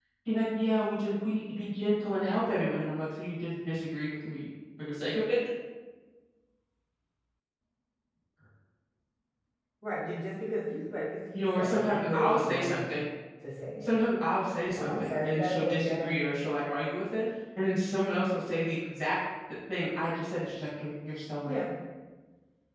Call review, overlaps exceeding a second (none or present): present